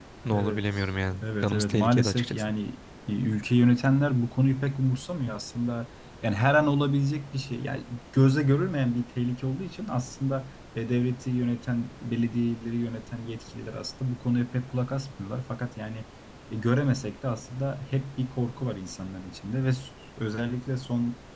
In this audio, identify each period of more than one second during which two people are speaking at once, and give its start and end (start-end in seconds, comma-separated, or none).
1.2-2.5